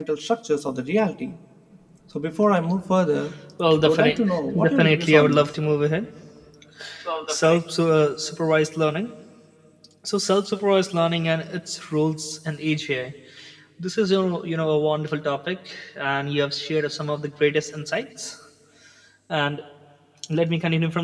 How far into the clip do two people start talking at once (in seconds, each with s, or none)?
3.8 s